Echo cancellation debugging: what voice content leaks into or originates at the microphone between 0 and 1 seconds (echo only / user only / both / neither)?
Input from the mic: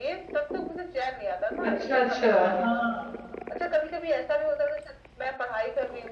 echo only